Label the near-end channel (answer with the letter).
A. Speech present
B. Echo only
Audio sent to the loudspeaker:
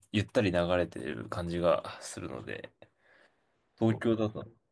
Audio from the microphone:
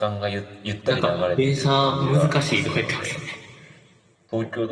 A